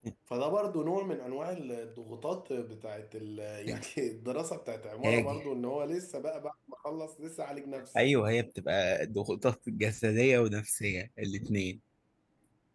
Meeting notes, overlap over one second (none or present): none